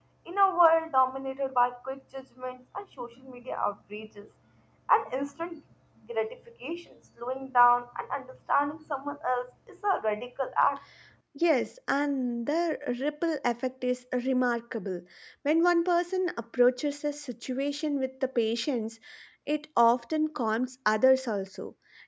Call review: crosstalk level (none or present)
none